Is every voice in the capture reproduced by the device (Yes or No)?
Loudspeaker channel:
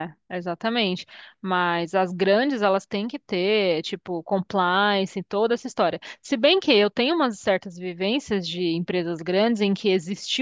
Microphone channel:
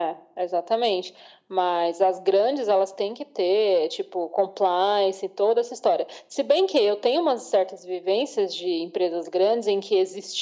Yes